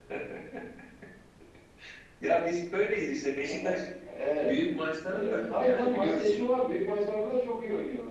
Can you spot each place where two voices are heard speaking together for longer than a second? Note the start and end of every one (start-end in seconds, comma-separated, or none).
5.1-6.4